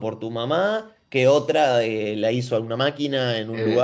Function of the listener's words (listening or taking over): listening